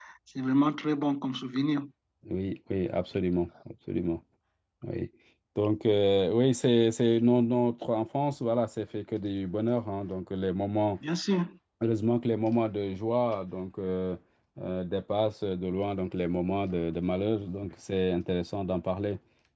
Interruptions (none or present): none